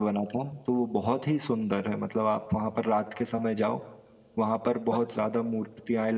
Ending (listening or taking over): listening